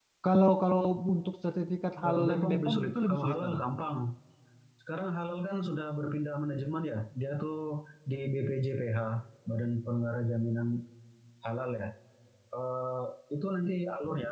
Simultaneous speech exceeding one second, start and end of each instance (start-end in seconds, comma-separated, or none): 2.1-3.6